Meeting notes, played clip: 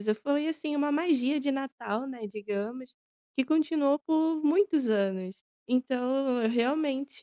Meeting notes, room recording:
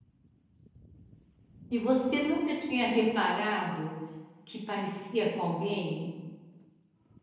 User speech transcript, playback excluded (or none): E você nunca tinha reparado que parecia com alguém?